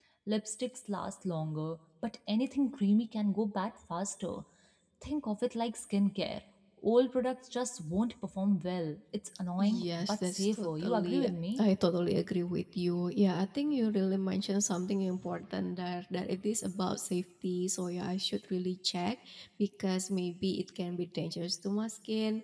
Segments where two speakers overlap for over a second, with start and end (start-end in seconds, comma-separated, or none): 9.6-11.6